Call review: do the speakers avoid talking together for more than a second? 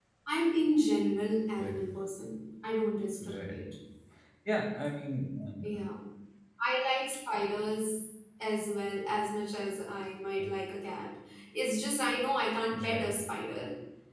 Yes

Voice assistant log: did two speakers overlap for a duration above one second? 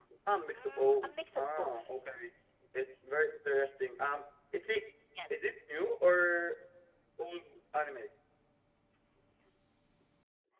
Yes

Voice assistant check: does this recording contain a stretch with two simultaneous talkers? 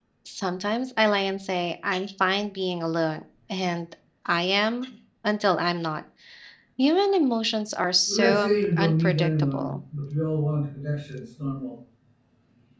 Yes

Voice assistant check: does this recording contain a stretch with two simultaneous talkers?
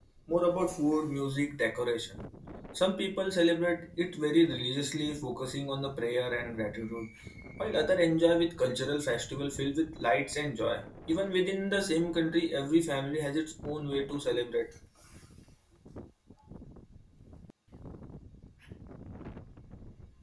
No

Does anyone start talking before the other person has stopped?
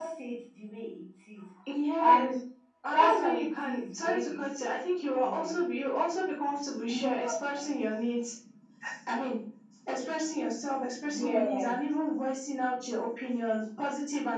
Yes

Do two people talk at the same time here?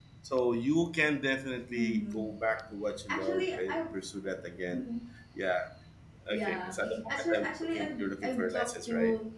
Yes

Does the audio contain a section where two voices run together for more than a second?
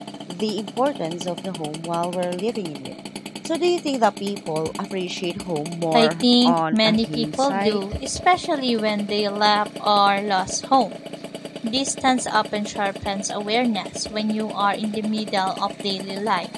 Yes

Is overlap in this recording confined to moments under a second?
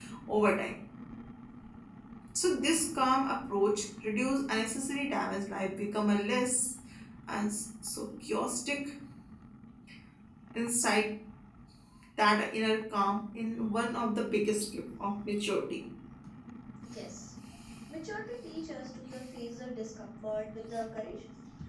Yes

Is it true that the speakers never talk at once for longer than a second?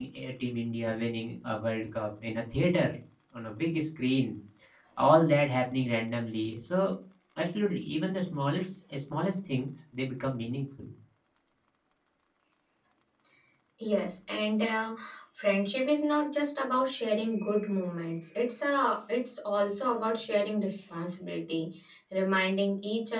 Yes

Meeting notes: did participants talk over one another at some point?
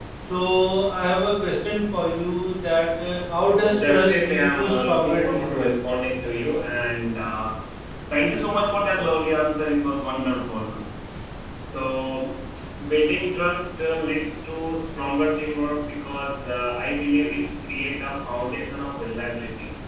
Yes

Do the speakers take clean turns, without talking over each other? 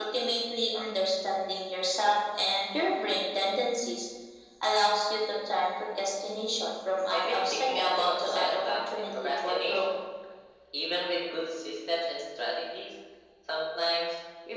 No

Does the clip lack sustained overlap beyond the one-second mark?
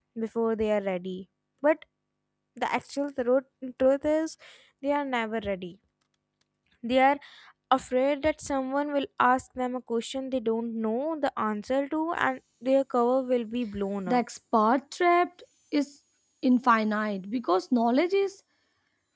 Yes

